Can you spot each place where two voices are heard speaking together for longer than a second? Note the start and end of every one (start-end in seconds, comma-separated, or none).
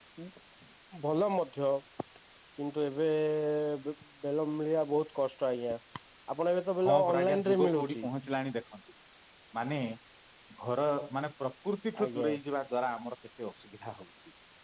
6.8-8.1